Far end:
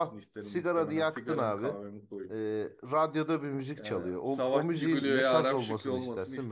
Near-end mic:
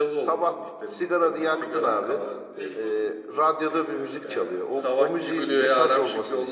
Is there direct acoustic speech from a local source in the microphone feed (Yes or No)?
Yes